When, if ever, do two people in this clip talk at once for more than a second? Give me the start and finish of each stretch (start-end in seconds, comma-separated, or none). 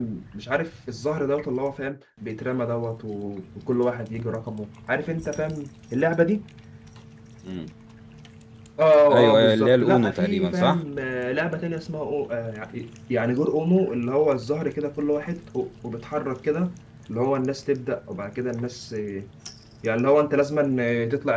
9.1-10.8